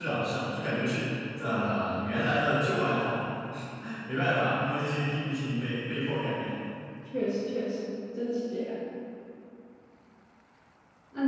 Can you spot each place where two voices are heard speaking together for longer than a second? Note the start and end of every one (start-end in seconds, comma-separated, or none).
none